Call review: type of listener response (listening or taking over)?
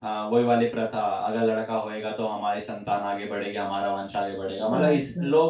listening